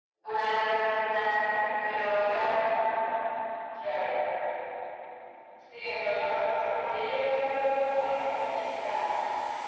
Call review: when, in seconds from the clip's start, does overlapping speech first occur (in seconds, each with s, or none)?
none